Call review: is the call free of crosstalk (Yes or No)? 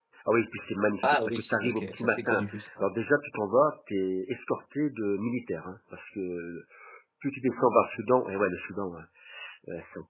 No